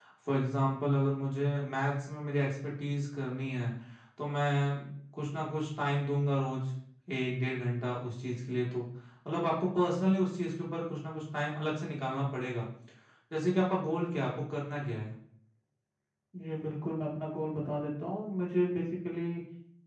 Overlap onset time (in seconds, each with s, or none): none